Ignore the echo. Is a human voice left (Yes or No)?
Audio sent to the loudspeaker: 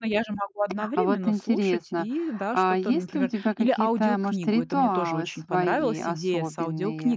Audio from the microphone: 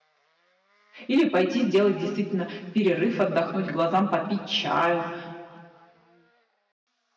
Yes